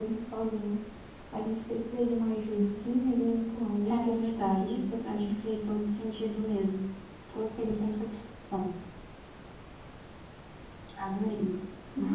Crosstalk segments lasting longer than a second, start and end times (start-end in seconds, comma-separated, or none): 3.9-5.5